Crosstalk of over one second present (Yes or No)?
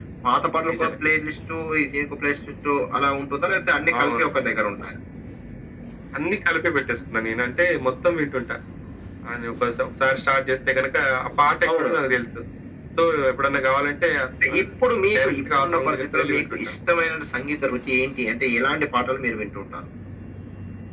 Yes